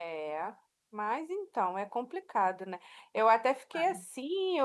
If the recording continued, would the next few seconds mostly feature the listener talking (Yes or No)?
No